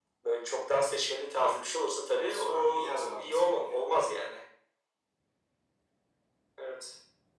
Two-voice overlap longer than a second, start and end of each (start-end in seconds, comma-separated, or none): 2.2-3.6